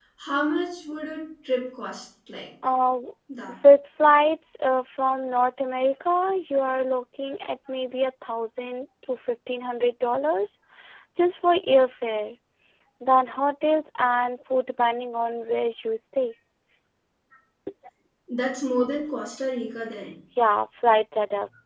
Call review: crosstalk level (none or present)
none